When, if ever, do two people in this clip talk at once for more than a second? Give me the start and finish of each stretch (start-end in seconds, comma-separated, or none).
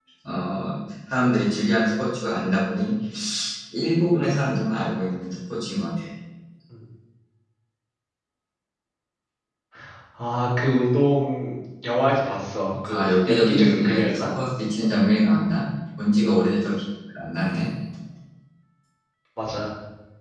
12.9-14.4